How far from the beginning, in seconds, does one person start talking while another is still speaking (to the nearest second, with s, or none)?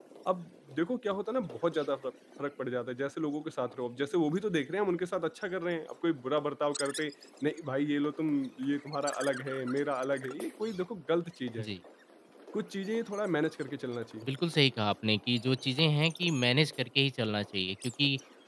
none